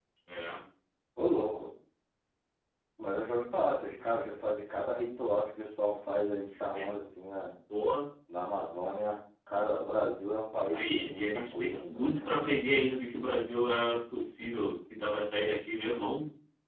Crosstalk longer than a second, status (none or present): present